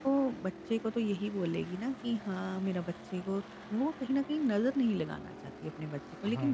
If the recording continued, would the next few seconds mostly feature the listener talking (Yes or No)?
No